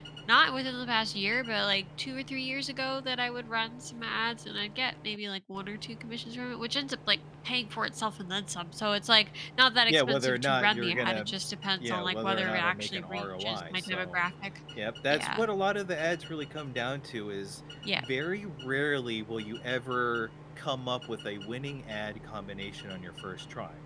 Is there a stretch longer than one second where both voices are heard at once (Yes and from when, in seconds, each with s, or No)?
Yes, from 9.9 s